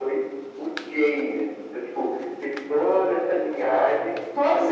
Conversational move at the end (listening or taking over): taking over